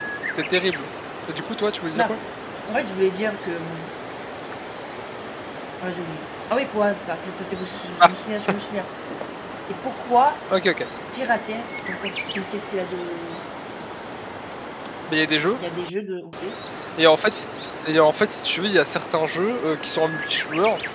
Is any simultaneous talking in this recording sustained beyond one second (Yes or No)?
No